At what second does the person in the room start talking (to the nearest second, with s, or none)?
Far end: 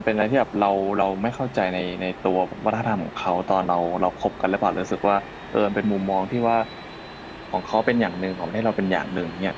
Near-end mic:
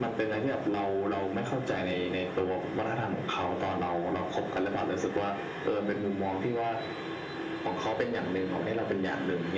none